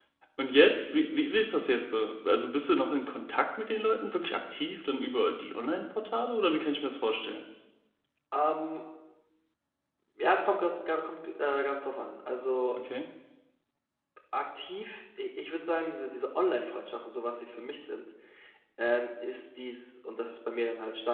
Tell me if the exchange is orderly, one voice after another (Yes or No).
Yes